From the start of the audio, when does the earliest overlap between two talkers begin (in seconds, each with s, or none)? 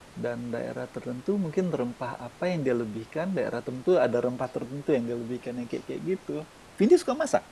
none